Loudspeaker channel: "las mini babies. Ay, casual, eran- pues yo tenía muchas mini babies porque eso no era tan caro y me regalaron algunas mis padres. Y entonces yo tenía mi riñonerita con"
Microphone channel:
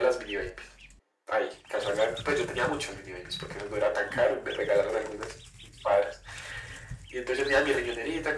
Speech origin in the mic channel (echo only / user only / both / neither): echo only